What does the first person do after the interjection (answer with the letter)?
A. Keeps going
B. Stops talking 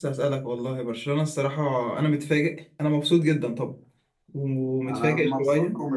B